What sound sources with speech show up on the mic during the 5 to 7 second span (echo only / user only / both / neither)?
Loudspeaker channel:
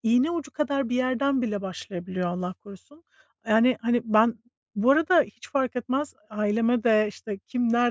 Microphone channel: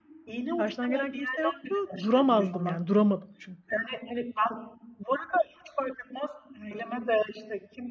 echo only